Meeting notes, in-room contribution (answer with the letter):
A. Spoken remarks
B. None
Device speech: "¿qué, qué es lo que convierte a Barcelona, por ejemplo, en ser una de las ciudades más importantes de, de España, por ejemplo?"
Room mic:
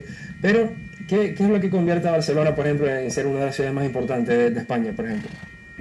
B